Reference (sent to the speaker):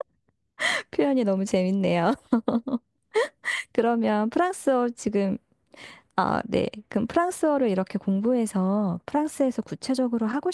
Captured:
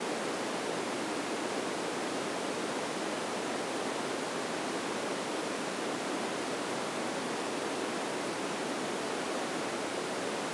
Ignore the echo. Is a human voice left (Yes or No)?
No